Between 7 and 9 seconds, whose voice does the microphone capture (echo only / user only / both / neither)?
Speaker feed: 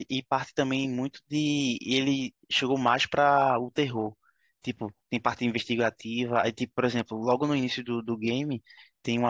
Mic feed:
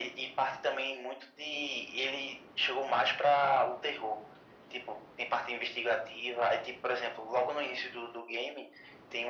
echo only